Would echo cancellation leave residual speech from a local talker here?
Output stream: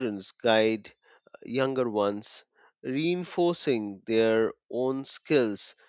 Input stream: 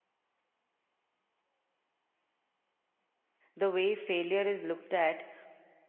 Yes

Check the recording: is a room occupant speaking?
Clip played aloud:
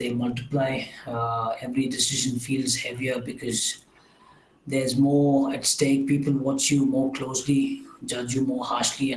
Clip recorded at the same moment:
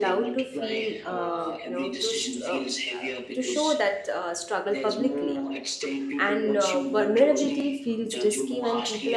Yes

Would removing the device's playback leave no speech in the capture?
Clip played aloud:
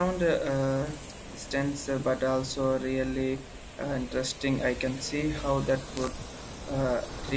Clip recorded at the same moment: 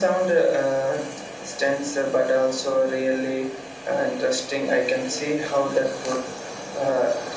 Yes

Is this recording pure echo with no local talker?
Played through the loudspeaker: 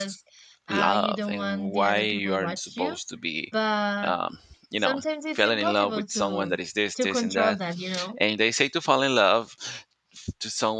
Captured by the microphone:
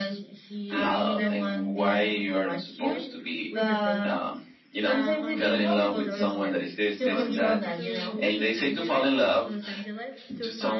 No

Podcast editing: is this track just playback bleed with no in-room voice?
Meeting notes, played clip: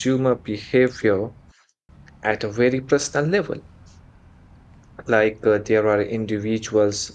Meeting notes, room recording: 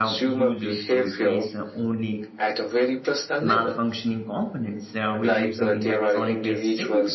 No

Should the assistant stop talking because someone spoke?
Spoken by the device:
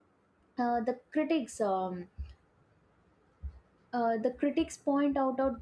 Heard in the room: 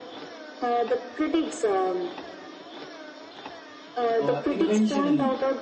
Yes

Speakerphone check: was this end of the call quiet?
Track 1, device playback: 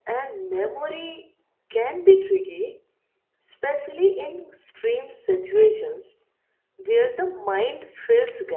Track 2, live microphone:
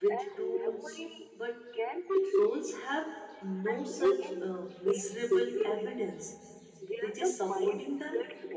No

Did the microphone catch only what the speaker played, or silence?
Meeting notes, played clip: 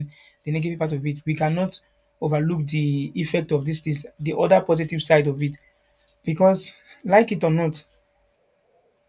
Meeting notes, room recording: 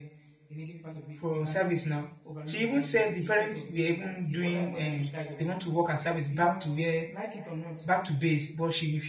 No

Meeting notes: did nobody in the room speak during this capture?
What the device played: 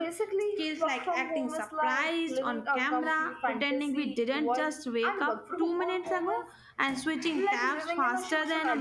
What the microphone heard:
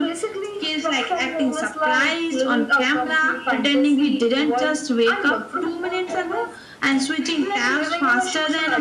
Yes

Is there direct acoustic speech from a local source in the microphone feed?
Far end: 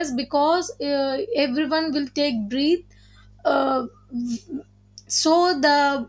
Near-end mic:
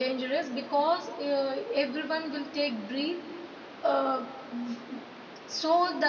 No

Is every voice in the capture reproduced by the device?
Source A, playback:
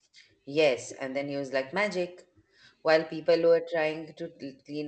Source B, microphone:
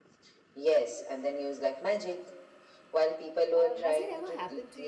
No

